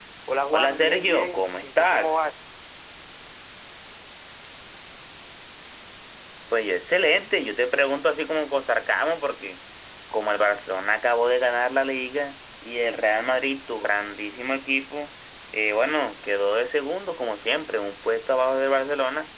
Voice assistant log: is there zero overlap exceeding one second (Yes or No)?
No